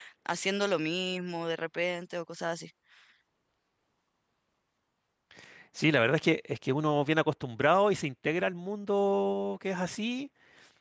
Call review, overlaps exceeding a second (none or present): none